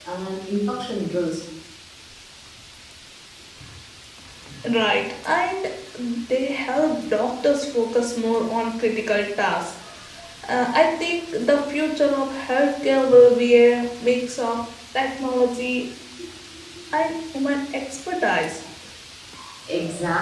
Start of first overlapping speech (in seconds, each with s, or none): none